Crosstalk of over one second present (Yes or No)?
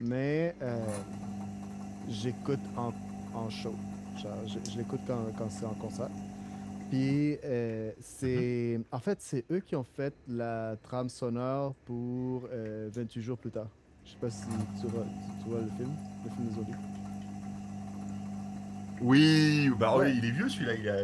No